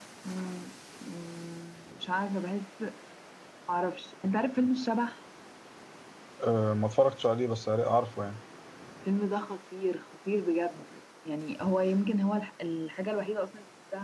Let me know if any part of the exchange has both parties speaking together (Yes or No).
No